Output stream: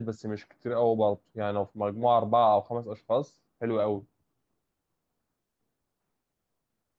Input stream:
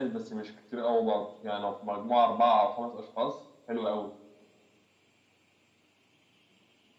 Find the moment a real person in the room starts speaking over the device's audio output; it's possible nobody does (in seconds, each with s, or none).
none